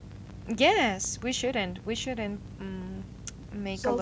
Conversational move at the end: taking over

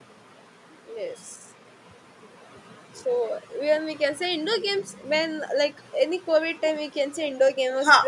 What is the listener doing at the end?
taking over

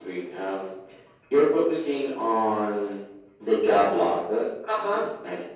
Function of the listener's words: listening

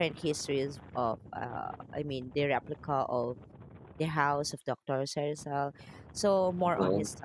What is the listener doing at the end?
listening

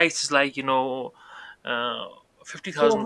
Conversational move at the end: listening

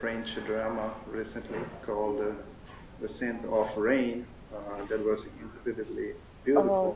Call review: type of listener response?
taking over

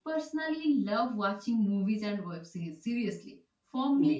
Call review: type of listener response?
listening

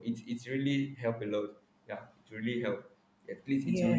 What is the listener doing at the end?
listening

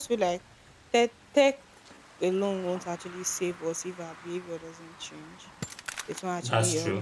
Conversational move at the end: listening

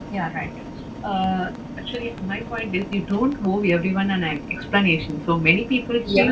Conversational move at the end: listening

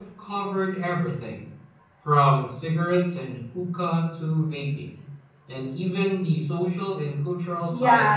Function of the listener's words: taking over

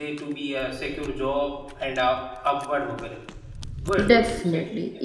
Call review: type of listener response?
taking over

